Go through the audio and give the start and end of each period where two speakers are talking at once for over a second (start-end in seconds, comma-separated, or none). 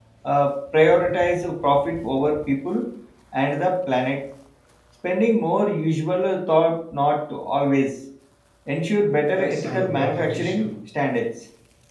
9.2-10.7